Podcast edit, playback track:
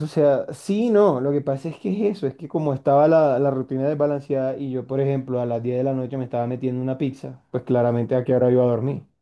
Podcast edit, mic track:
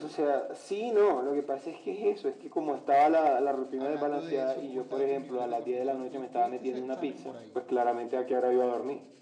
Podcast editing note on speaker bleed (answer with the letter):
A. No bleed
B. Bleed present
B